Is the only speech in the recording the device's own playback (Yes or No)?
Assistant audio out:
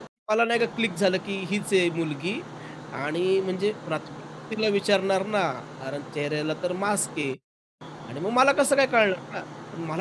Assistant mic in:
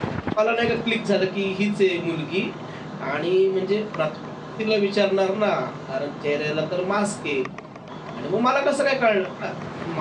Yes